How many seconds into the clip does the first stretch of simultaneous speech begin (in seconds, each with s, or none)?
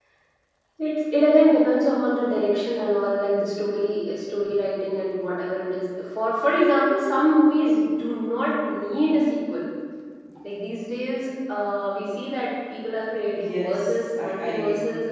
13.3 s